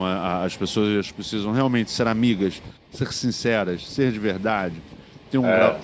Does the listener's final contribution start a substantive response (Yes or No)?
No